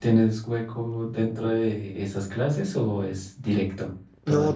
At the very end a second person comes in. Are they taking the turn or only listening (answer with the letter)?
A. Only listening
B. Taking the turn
B